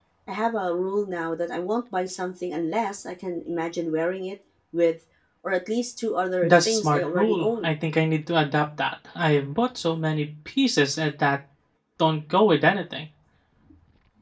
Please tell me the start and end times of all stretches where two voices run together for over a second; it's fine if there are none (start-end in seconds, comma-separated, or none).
6.4-7.7